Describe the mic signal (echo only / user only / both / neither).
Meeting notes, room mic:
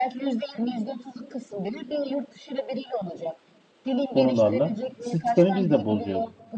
both